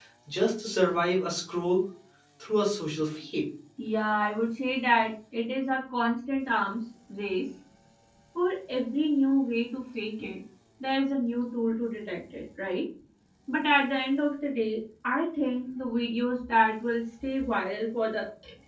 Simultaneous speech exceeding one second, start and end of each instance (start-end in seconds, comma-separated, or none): none